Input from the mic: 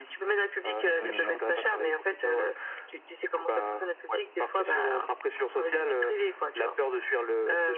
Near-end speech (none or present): present